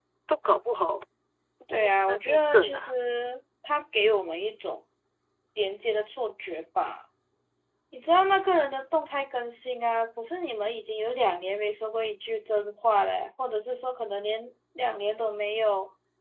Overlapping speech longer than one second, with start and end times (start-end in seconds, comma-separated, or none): 1.7-2.9